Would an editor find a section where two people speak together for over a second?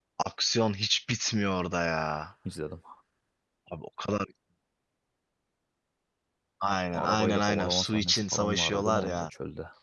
Yes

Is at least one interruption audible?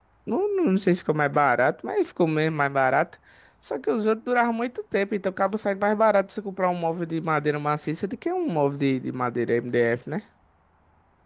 No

